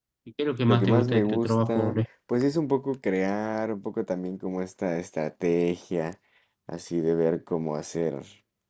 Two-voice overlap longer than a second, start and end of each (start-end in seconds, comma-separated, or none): 0.7-1.9